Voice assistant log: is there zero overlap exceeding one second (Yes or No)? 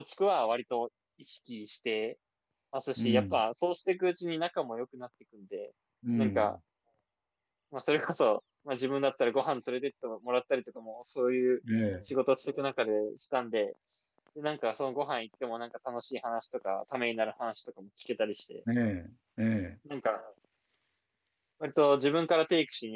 Yes